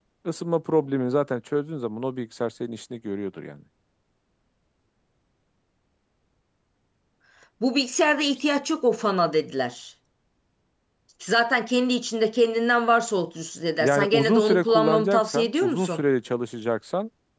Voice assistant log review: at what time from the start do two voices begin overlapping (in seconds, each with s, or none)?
13.8 s